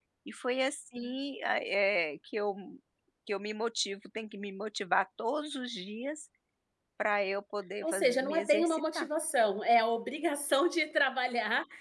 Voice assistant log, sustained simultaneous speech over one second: present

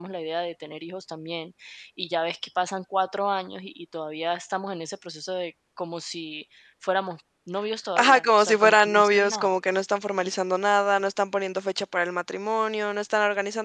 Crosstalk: present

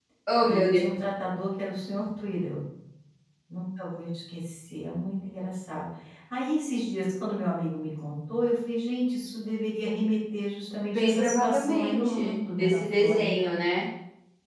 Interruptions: present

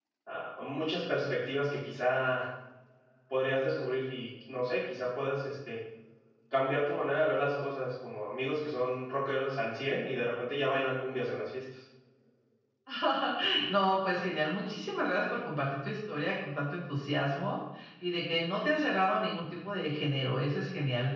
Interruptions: none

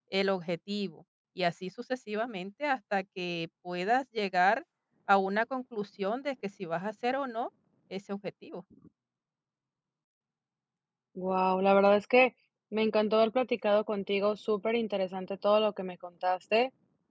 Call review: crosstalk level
none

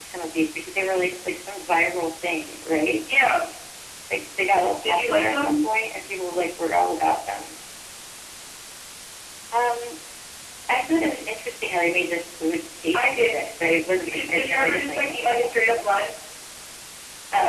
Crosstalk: present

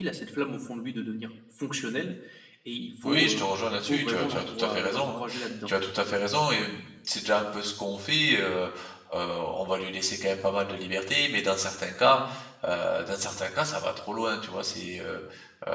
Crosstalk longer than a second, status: present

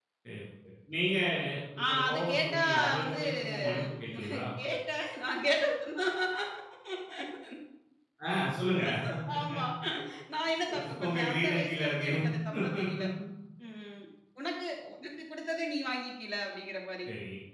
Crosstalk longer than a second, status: present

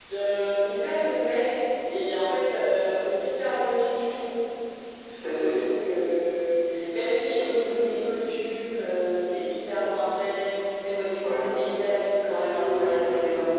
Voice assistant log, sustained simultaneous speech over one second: none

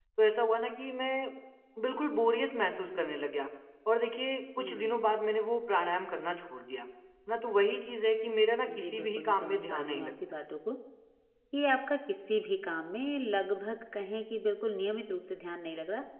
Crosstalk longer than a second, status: present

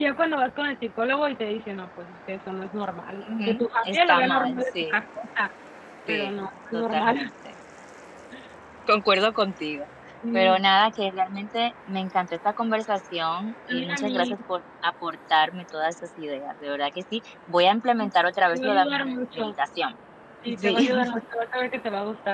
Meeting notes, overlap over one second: present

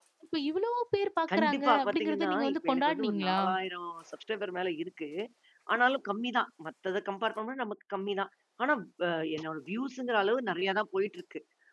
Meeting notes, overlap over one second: present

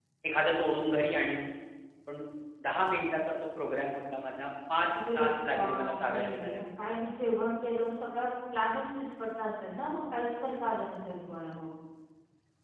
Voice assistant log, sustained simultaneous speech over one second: present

